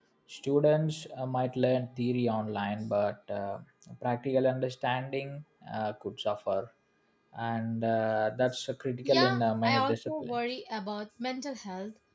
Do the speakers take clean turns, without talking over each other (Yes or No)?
No